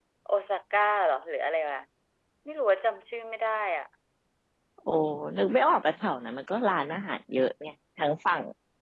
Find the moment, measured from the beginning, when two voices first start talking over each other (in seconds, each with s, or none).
none